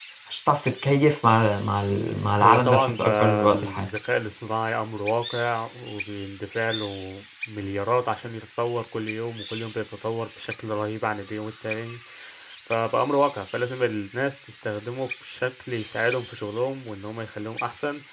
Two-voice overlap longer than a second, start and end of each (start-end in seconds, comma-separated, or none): 2.4-3.9